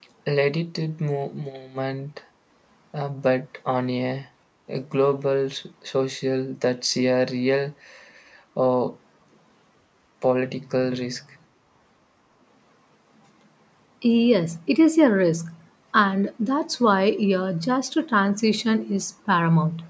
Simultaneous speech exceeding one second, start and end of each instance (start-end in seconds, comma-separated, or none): none